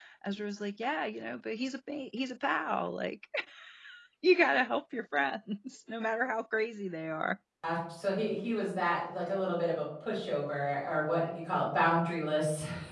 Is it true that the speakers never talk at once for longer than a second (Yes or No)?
Yes